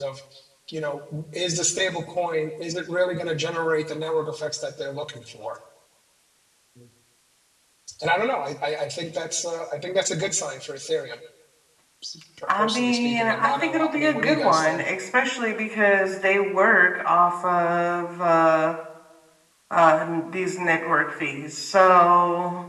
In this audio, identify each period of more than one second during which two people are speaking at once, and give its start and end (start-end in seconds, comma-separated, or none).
12.6-14.8